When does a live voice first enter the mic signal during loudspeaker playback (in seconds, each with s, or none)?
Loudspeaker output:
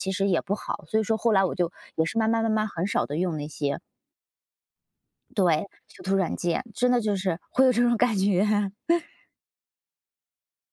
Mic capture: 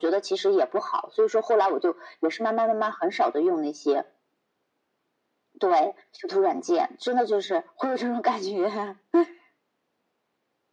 none